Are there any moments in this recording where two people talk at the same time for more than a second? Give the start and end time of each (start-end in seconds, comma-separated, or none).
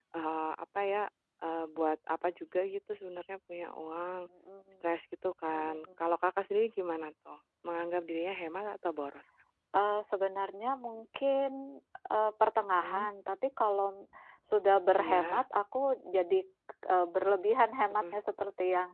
none